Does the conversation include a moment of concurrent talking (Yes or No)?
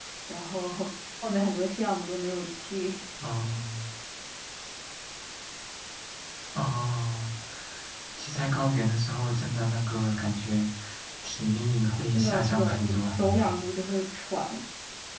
Yes